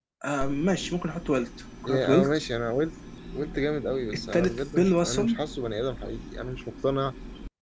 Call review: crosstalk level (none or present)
present